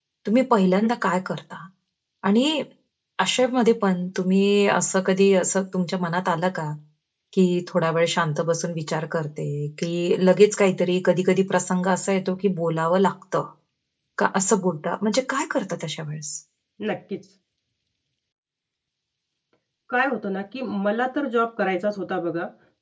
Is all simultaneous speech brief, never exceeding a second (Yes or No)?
Yes